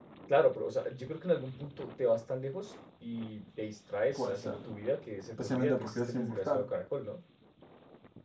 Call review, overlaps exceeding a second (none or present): present